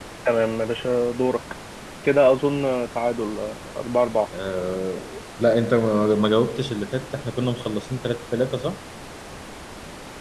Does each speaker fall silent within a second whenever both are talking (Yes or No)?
Yes